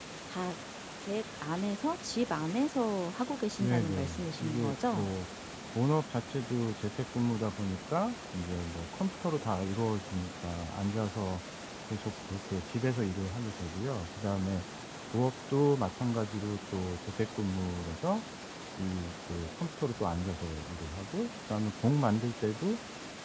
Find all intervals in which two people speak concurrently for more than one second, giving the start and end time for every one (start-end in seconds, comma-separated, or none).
3.6-5.1